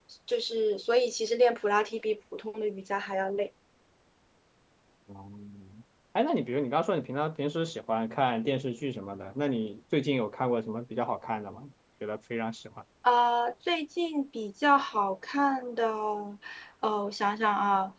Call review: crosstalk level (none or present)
none